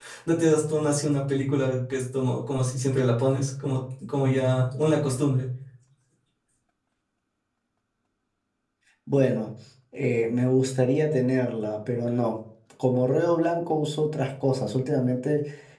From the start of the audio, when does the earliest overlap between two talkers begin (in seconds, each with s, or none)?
none